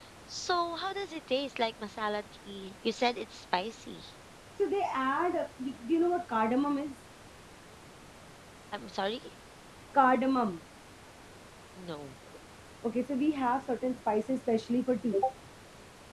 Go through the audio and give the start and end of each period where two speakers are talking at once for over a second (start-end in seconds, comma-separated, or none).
none